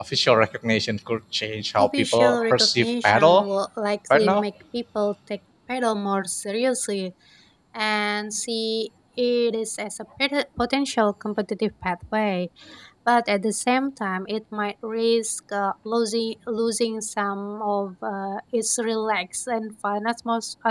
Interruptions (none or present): present